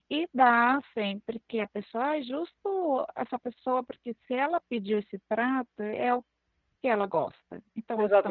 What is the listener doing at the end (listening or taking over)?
taking over